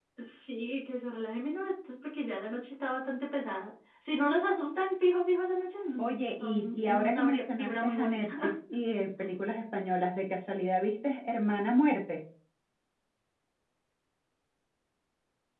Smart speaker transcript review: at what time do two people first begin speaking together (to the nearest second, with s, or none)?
6 s